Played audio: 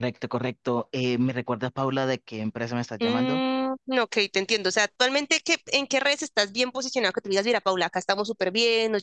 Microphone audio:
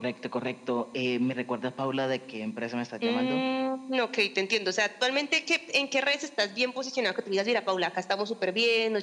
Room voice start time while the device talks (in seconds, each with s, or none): none